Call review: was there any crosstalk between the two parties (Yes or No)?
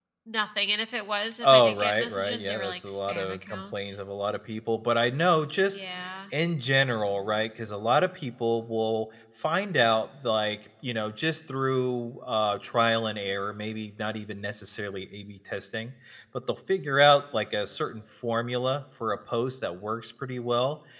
Yes